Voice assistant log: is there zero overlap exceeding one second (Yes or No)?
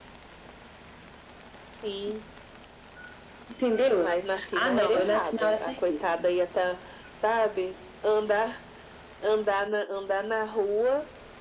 No